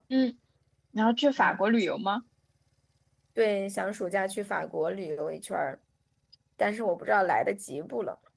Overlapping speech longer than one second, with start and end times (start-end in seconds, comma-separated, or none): none